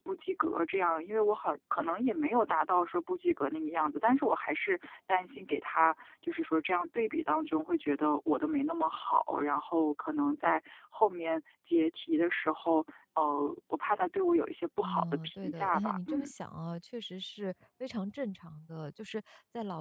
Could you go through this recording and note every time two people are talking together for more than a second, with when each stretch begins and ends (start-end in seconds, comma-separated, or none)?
14.8-16.3